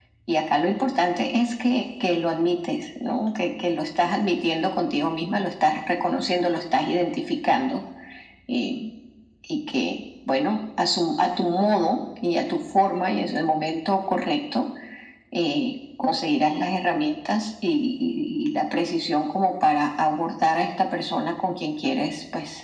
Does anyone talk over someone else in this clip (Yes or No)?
No